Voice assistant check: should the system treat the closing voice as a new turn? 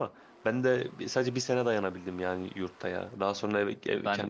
No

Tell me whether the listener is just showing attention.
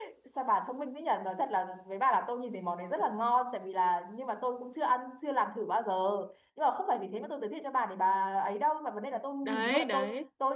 Yes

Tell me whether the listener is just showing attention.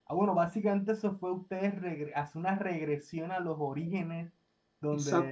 Yes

